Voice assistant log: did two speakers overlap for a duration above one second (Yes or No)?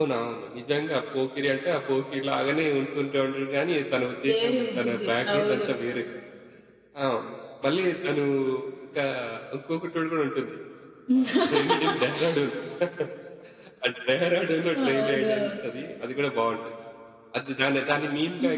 Yes